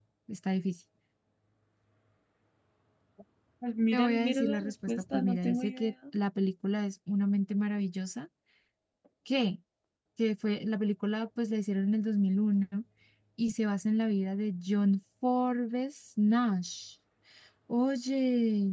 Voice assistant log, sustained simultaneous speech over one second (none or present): present